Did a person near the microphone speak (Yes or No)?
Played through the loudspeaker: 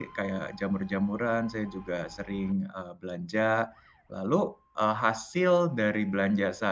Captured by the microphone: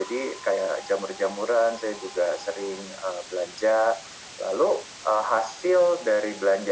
No